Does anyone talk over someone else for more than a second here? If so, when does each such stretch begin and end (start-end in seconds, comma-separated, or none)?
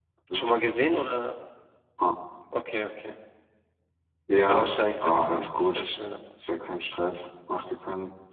4.5-5.9